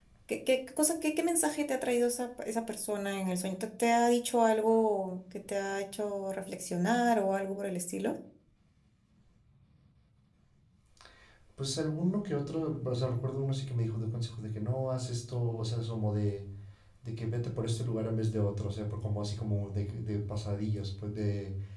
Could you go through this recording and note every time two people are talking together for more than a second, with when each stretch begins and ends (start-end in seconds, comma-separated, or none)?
none